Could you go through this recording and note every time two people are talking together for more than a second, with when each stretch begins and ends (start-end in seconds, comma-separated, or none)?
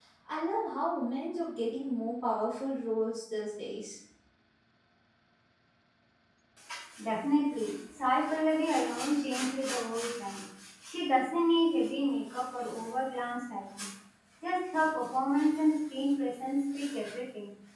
none